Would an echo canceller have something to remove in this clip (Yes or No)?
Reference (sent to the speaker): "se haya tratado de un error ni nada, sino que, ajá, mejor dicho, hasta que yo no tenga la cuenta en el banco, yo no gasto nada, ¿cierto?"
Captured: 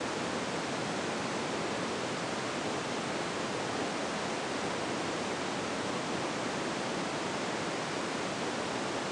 No